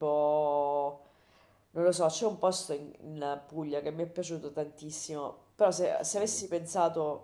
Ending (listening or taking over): listening